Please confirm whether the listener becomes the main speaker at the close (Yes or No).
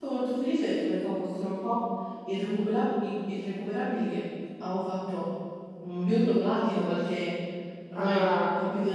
No